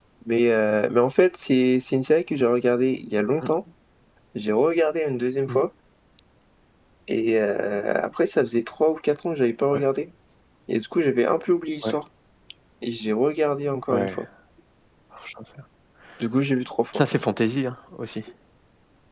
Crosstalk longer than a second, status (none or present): none